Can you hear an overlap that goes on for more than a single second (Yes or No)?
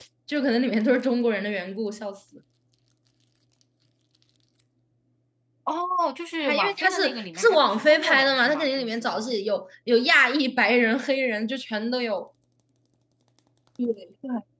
Yes